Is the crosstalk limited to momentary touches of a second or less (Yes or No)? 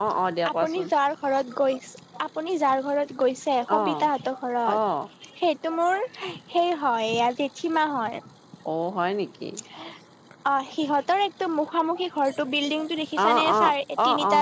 Yes